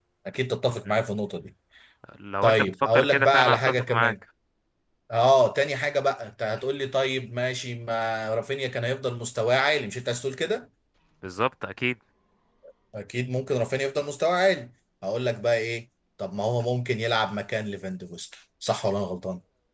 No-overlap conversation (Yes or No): No